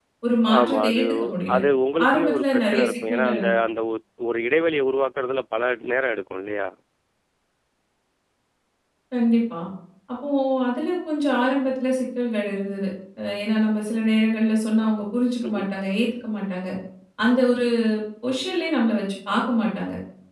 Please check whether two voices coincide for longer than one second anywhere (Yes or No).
Yes